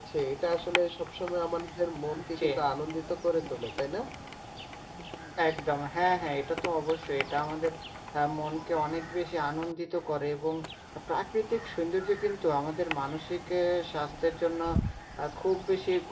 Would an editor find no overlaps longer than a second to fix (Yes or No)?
Yes